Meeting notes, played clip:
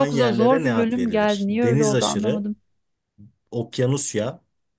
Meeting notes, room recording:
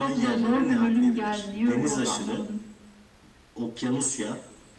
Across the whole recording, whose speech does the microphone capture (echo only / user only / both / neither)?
echo only